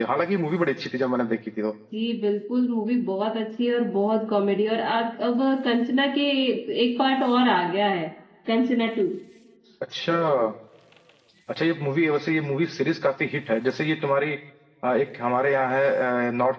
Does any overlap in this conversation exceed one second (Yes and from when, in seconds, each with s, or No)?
No